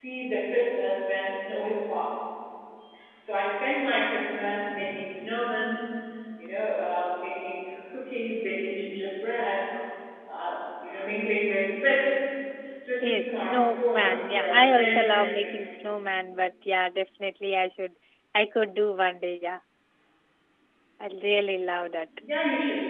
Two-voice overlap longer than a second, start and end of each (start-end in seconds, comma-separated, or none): 13.0-15.6